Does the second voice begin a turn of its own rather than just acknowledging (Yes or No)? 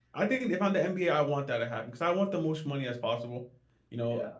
No